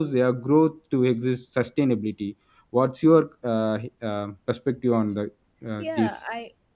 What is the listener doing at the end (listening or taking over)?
taking over